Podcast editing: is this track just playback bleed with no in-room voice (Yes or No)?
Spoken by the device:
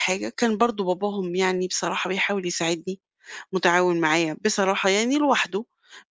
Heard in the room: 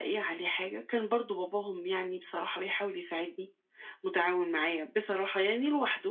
Yes